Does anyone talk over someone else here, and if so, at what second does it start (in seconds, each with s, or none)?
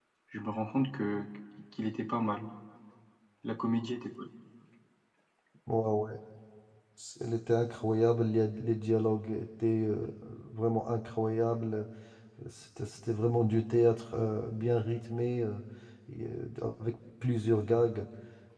none